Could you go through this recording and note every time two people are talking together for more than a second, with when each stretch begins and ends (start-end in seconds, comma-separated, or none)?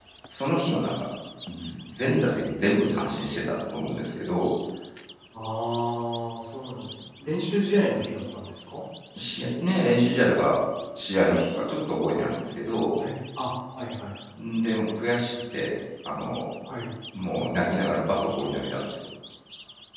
none